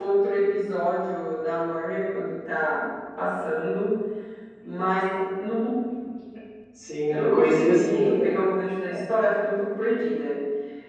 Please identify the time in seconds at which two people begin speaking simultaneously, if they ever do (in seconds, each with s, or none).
7.1 s